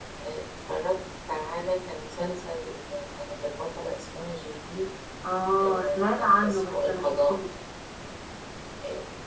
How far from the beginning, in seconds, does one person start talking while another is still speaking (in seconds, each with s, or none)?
5.6 s